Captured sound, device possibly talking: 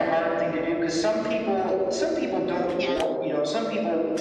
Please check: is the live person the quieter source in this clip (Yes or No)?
Yes